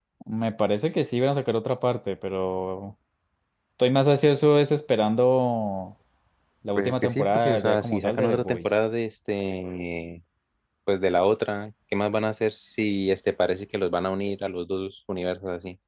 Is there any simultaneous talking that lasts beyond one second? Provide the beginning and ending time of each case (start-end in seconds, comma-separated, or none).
6.8-8.8